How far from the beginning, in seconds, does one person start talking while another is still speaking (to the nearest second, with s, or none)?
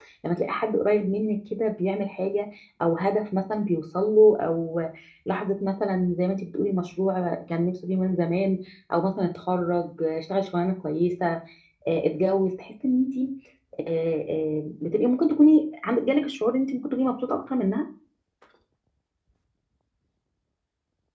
none